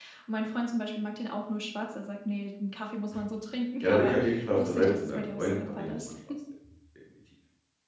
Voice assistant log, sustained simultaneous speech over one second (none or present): present